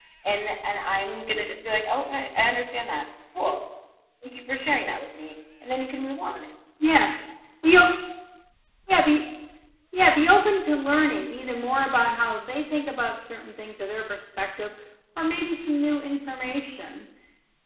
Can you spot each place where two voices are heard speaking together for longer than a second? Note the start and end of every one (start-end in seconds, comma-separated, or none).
none